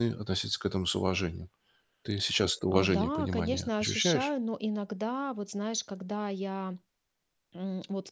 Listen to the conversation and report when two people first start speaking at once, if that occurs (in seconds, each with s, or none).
2.7 s